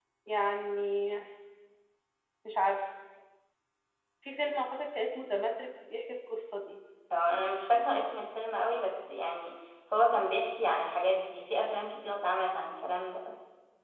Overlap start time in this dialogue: none

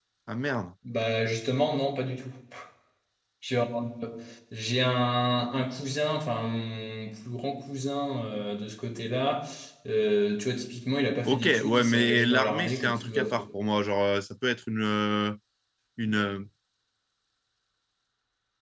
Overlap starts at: 11.2 s

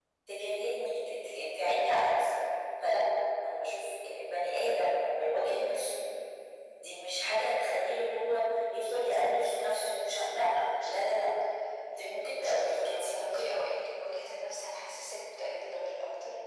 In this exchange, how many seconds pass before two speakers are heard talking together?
8.9 s

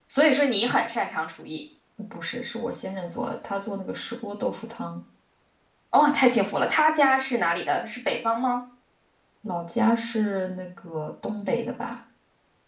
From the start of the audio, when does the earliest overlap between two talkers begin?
none

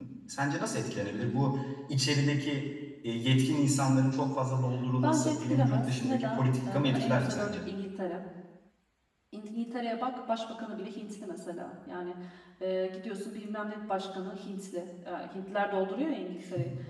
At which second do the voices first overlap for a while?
5.0 s

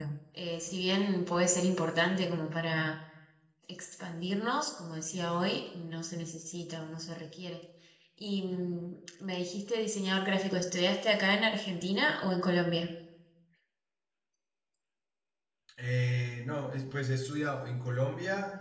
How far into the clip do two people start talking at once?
none

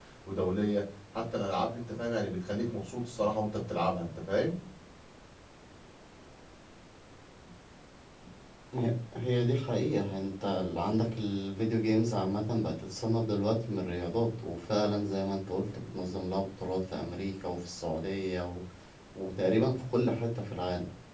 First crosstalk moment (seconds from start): none

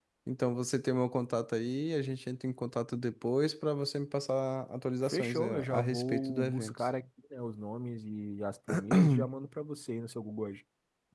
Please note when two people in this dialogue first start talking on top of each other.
5.0 s

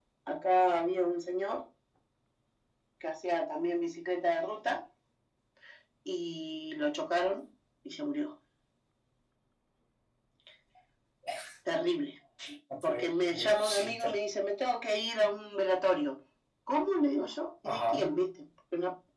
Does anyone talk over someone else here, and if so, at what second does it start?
12.9 s

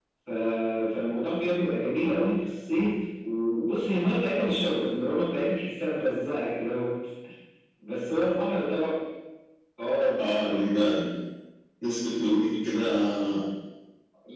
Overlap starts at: none

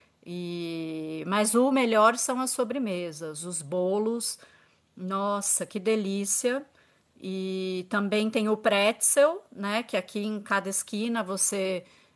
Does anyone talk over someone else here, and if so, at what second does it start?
none

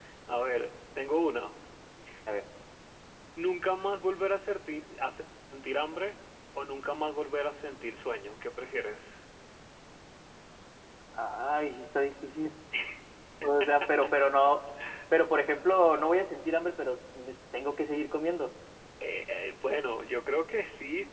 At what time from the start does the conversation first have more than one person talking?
none

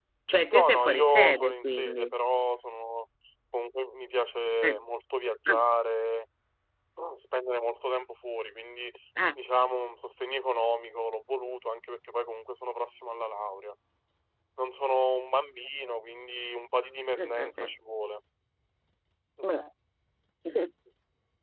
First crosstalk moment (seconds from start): 0.5 s

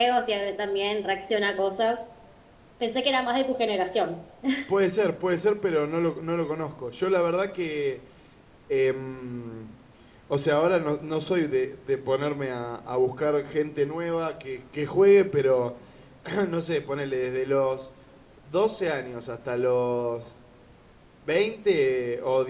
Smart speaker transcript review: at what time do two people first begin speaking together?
none

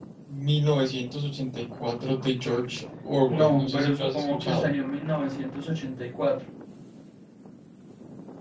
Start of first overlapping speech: 3.3 s

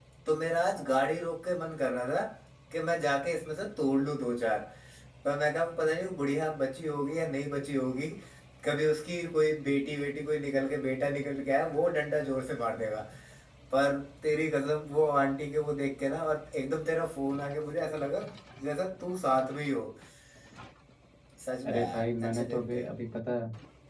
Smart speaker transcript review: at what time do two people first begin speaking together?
21.6 s

